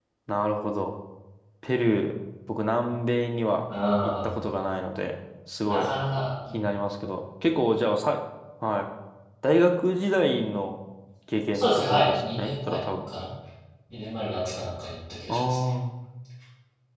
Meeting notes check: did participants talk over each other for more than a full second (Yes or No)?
Yes